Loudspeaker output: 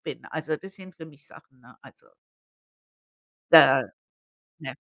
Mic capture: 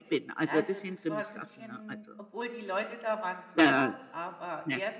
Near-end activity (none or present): present